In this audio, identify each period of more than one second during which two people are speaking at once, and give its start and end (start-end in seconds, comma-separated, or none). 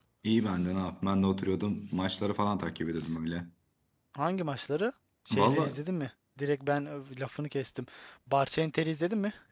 none